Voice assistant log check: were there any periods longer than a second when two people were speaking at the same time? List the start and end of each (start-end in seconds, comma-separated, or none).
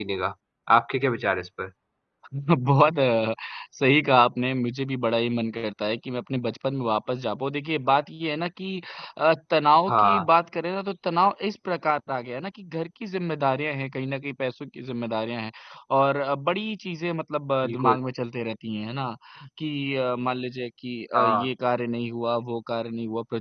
none